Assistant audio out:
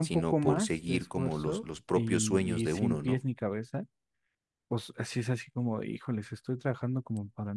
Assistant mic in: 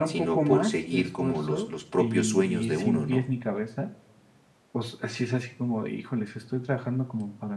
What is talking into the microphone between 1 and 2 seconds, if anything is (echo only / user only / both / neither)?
echo only